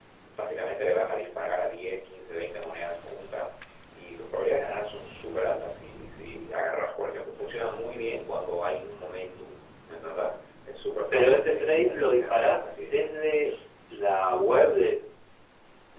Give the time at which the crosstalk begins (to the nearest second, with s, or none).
11 s